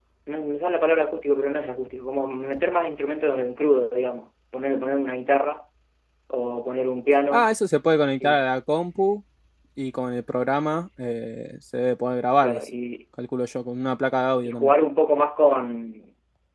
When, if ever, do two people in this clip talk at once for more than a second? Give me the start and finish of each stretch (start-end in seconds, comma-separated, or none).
none